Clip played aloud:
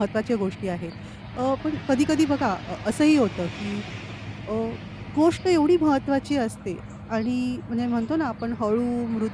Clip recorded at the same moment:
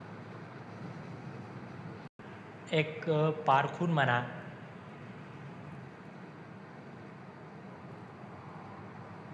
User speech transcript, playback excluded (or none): एक अ, पारखून म्हणा,